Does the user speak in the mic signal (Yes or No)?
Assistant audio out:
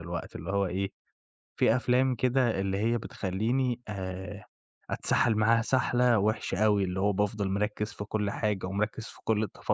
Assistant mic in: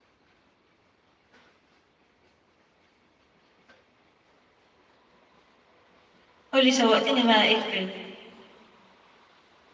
Yes